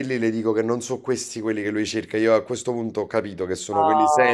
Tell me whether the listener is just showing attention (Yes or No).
No